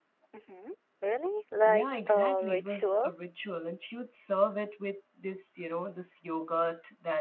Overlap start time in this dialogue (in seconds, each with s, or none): 1.7 s